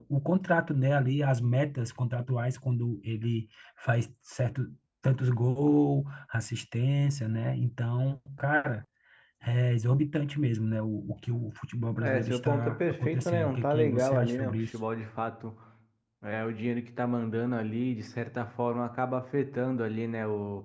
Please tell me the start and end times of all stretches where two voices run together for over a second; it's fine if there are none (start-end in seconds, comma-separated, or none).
12.0-14.7